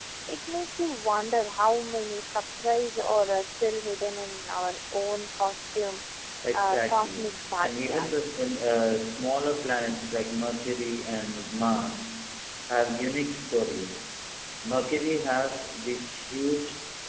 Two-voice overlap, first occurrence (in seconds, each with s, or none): 6.5 s